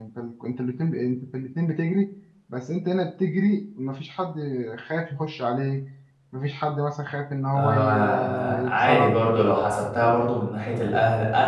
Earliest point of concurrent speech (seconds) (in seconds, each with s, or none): 7.5 s